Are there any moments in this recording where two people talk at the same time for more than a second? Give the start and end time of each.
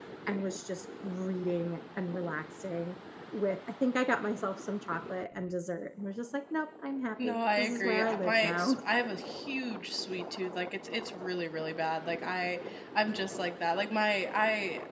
7.2-8.8

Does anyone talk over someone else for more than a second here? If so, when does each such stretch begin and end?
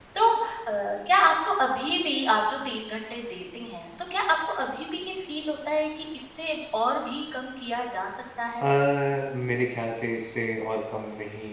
none

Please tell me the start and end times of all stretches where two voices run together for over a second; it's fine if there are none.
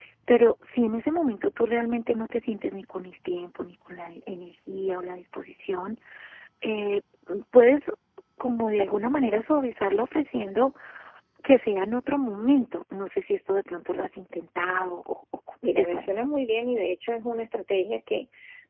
none

